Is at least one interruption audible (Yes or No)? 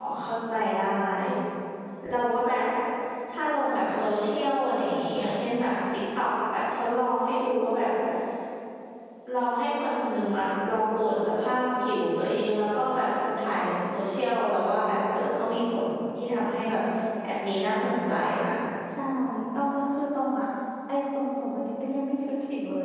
No